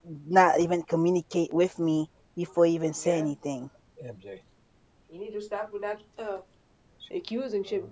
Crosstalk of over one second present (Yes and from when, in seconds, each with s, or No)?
No